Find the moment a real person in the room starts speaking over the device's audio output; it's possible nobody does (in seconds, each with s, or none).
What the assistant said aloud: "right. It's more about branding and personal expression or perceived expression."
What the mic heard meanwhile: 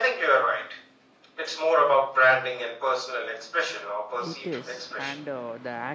4.2 s